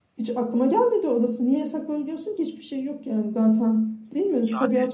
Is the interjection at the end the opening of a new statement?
No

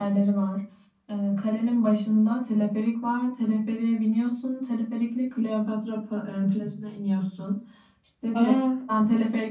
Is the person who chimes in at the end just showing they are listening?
Yes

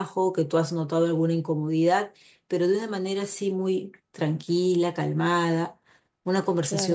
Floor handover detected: Yes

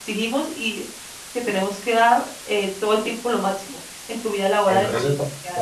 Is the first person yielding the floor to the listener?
Yes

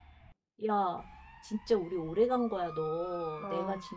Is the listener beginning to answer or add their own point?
No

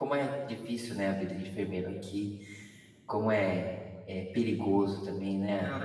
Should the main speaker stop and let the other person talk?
Yes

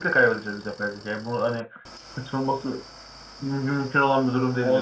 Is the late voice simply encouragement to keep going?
No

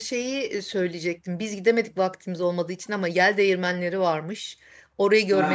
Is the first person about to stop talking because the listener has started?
No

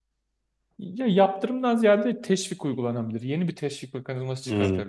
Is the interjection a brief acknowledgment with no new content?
Yes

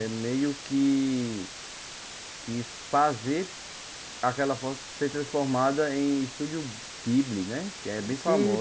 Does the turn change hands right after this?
Yes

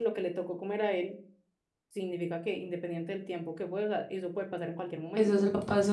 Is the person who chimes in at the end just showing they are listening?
No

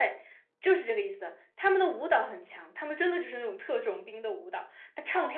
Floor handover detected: No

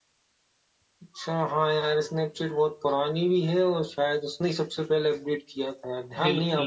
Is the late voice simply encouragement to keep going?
No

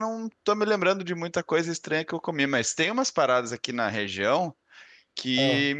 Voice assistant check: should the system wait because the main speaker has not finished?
Yes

